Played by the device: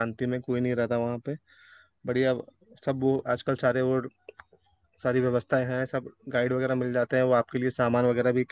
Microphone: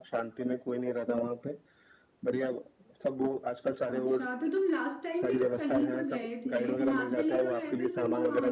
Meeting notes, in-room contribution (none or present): present